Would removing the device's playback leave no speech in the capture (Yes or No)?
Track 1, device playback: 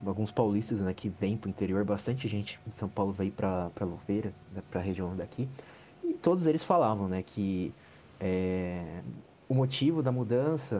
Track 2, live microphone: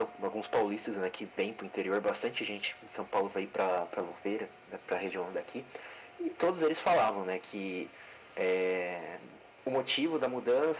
Yes